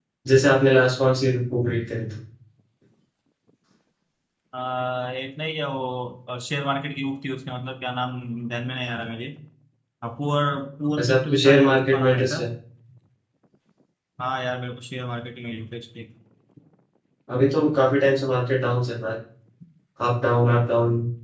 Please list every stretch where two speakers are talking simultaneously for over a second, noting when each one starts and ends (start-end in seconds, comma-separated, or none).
11.0-12.4